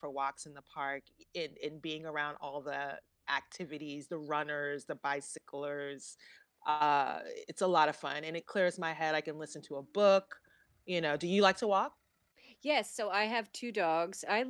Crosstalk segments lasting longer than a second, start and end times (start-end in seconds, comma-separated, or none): none